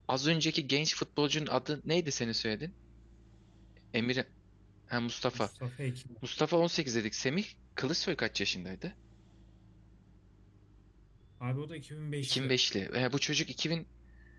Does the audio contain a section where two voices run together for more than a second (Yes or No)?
No